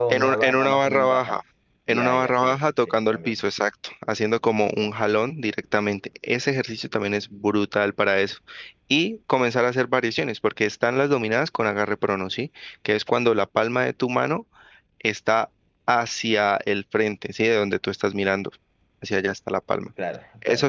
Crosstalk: present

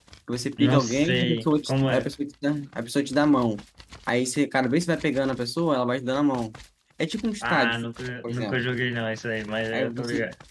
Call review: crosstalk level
present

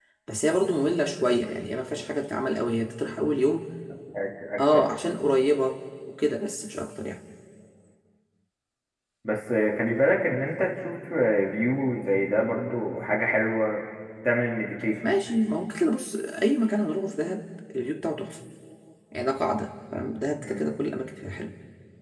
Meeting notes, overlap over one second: none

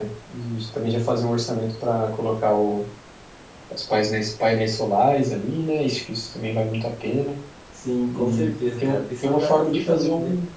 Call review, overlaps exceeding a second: present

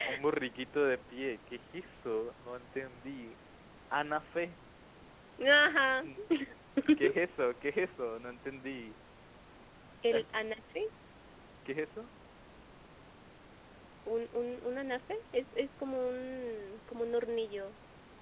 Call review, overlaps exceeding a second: none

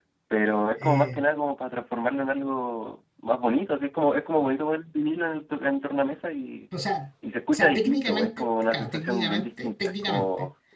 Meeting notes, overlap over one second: present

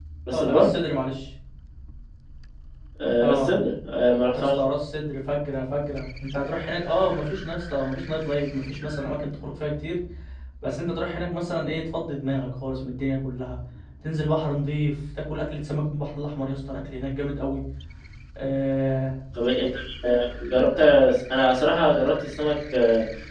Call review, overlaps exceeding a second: none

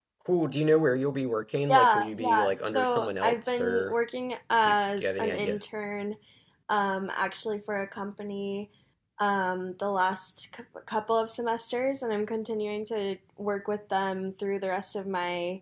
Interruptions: present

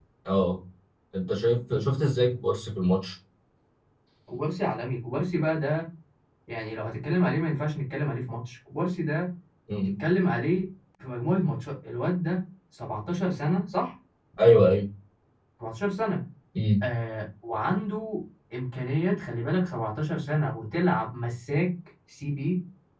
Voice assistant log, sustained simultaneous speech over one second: none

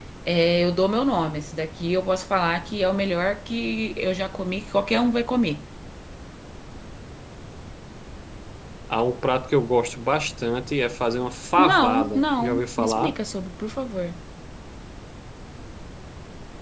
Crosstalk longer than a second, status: present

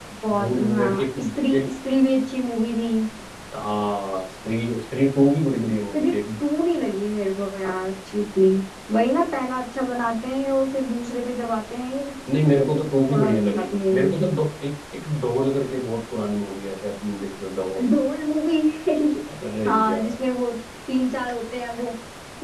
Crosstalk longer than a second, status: present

